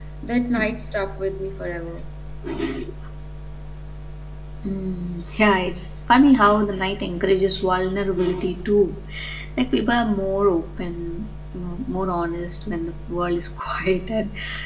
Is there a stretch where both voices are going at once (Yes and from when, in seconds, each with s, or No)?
No